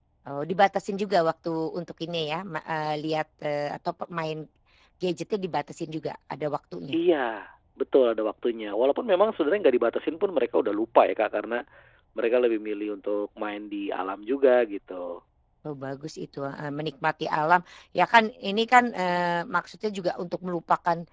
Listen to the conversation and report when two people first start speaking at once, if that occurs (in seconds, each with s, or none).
none